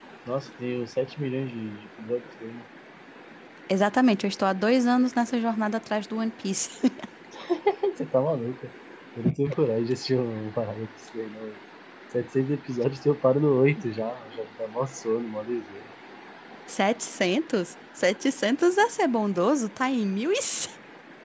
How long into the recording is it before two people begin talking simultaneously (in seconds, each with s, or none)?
none